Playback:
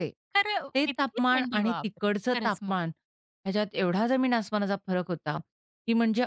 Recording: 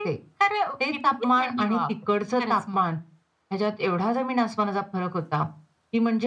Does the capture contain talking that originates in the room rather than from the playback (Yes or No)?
No